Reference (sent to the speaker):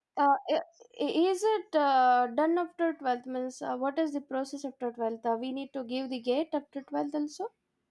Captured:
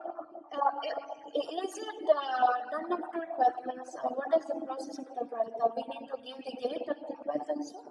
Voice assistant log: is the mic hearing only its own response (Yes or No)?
Yes